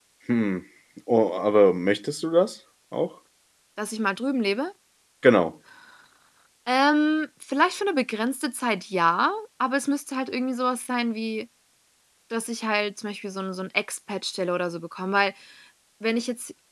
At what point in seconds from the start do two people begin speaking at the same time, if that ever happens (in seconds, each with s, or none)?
none